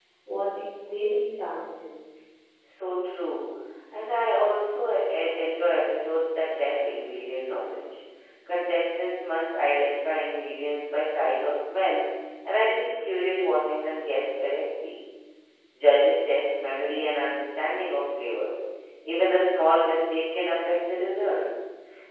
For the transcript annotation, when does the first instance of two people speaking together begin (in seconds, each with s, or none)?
none